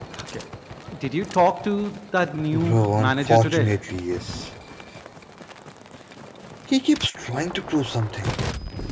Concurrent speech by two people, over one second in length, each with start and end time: 2.5-3.7

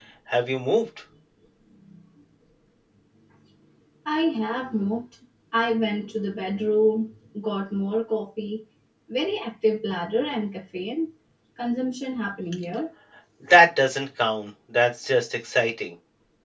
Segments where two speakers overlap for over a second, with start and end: none

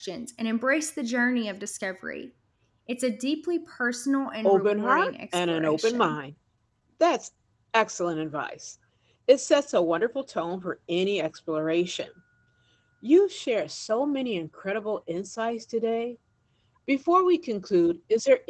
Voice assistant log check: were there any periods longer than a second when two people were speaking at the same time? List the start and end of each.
4.5-6.2

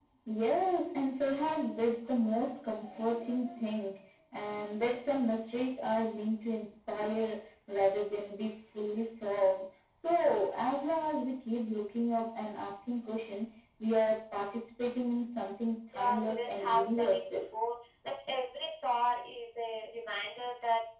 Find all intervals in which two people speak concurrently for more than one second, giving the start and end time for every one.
15.9-17.4

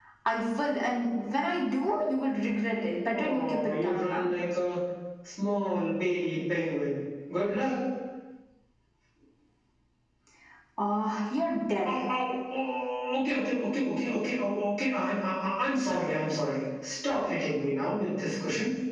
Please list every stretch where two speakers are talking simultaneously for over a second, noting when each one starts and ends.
3.1-4.3

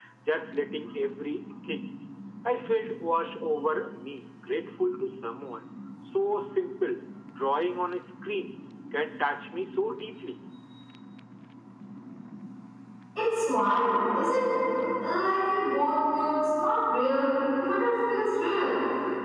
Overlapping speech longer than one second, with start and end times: none

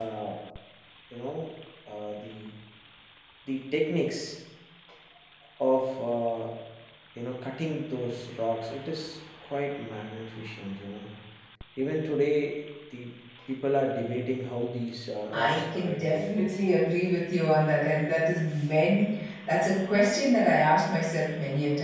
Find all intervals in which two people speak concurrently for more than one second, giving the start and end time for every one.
15.3-16.5

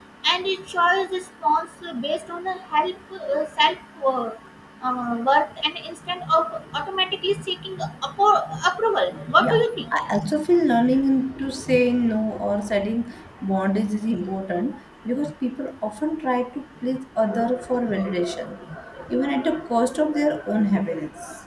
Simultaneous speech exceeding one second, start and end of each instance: none

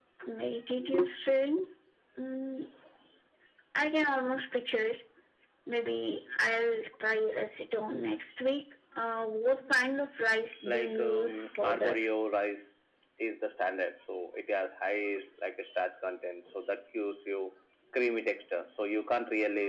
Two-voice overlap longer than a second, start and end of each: 10.7-12.1

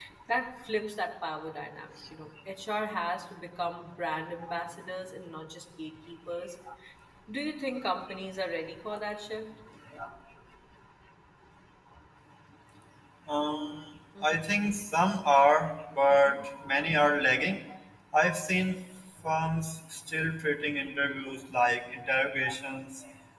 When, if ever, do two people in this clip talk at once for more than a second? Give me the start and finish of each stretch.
none

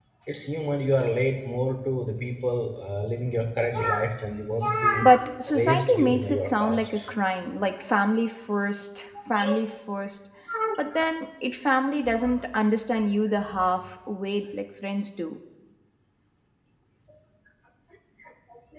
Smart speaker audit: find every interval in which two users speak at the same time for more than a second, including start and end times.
5.0-7.1

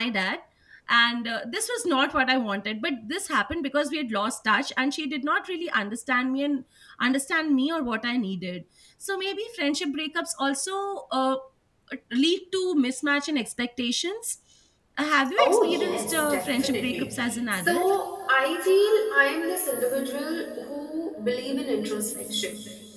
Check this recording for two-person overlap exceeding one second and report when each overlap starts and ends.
15.4-17.9

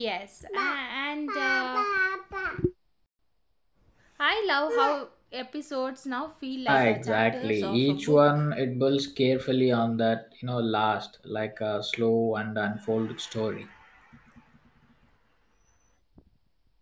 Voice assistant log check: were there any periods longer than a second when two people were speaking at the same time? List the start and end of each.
6.7-8.5

